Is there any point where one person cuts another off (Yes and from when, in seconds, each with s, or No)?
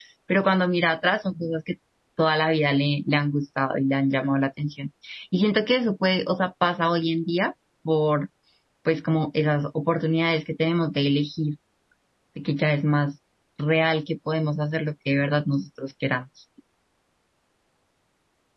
No